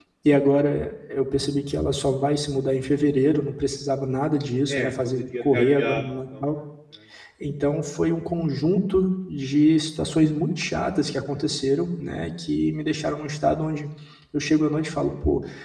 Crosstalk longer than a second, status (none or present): present